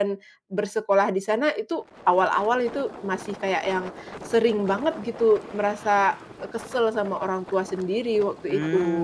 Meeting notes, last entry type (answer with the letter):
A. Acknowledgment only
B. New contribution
B